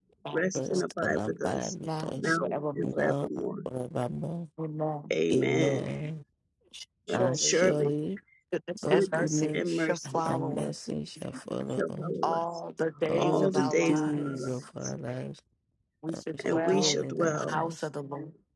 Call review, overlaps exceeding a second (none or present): present